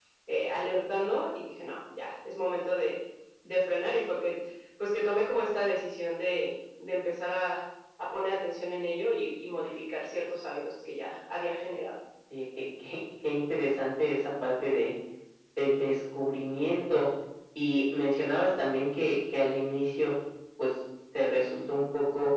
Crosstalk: none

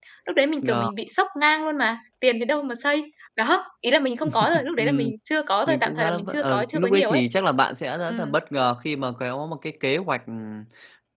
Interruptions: present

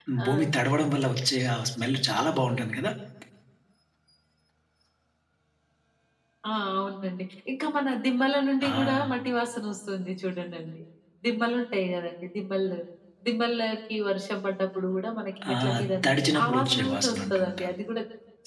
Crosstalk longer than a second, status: present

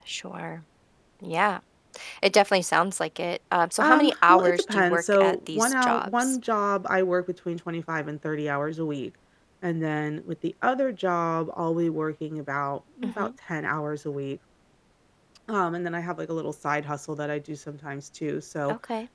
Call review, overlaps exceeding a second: present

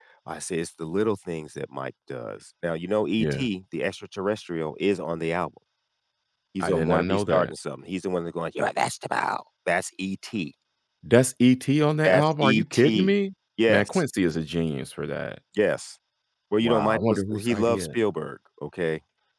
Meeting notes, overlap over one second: present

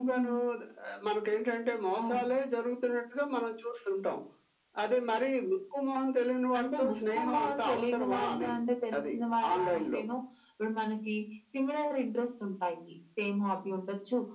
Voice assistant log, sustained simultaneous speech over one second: present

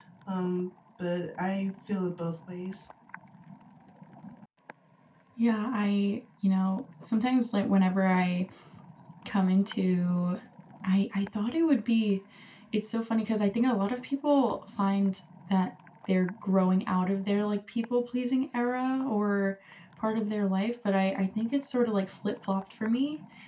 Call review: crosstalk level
none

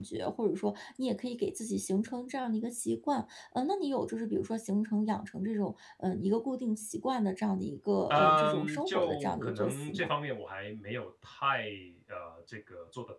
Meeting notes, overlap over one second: present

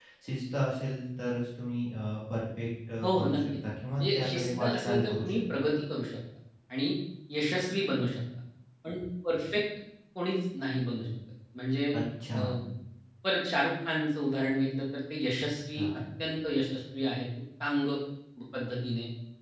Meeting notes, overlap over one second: present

